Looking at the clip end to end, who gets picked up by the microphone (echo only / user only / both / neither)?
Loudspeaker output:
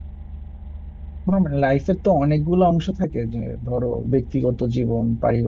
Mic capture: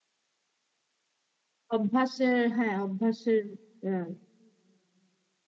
user only